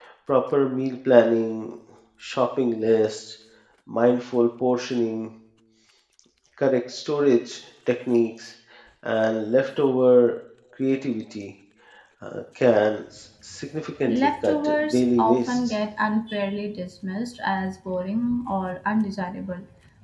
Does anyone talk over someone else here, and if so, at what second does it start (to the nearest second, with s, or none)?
14 s